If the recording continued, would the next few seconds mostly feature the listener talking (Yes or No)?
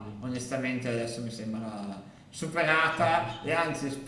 No